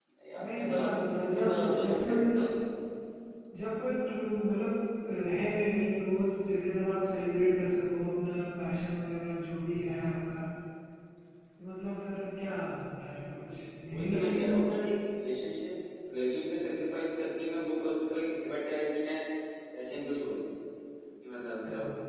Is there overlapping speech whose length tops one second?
Yes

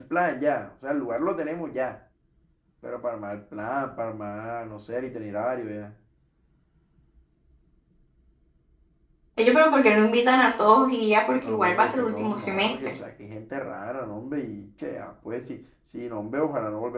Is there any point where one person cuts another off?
Yes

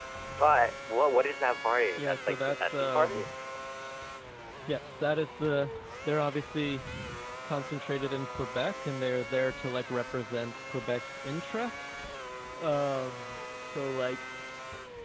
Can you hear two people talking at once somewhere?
Yes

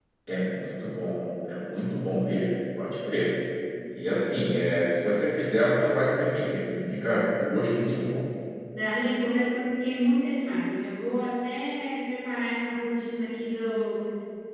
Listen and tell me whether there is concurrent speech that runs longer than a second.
No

